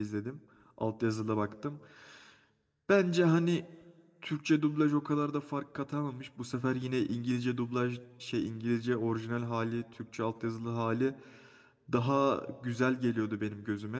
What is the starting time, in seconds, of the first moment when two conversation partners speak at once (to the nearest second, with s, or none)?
none